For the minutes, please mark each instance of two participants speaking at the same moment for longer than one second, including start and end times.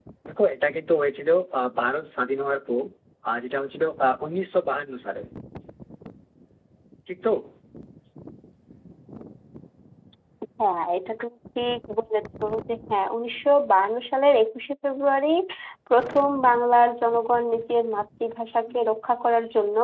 none

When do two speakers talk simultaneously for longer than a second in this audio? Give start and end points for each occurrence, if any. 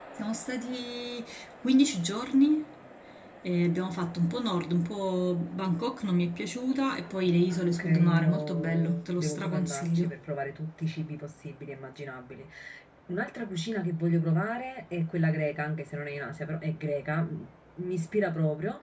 7.8-10.2

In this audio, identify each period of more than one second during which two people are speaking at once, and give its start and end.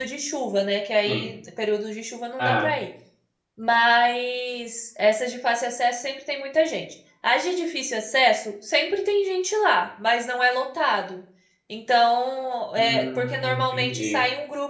12.8-14.2

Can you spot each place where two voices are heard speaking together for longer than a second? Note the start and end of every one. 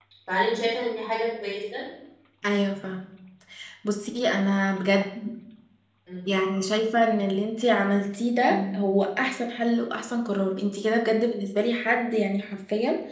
none

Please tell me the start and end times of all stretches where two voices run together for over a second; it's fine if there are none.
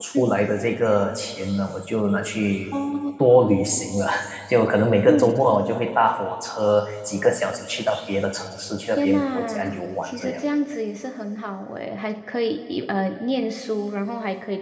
9.0-10.4

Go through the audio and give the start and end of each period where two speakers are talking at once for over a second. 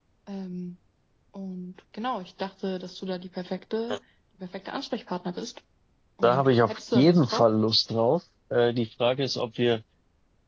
6.2-7.5

